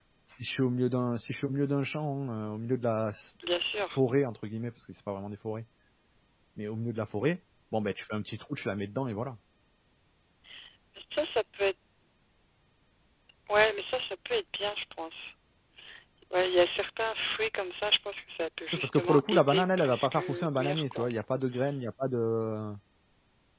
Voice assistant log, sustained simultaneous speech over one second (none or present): present